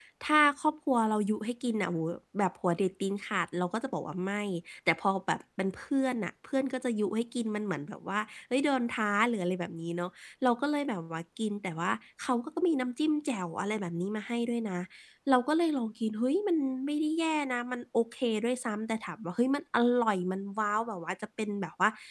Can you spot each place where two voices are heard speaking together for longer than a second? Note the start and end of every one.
none

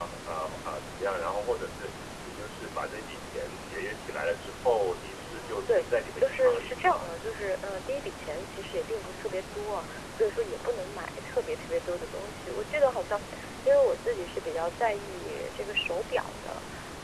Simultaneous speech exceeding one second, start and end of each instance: 5.2-6.9

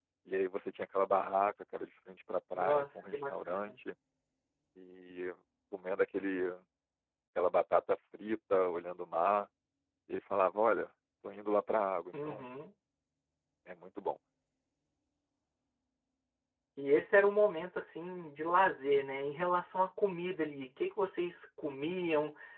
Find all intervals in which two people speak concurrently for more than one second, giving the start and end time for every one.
2.5-3.8

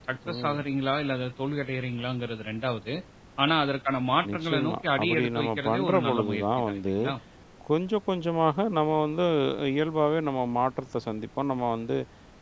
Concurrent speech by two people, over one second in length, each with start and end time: 4.3-6.9

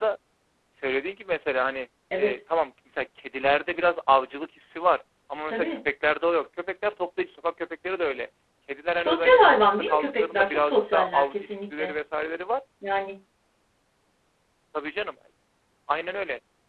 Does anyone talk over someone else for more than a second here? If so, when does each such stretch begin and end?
9.0-11.9

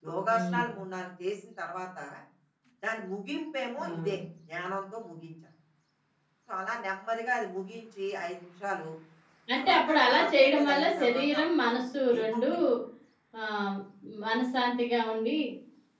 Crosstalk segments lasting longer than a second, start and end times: 9.6-11.7

